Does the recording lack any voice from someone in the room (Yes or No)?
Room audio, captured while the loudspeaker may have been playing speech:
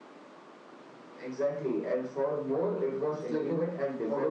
Yes